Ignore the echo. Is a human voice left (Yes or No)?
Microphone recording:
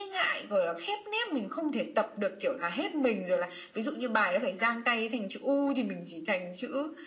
No